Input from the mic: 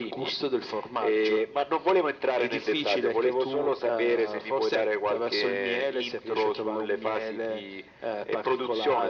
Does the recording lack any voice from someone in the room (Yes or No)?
Yes